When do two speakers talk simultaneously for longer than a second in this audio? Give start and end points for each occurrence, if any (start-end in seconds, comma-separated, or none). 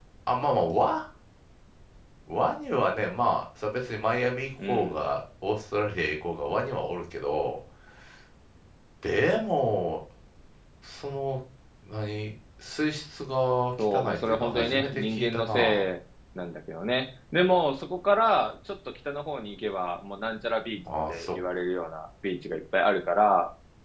14.1-15.9